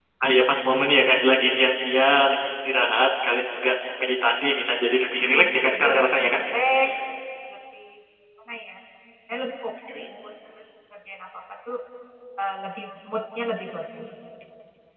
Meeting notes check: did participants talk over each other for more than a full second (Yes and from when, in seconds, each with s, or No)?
Yes, from 5.1 s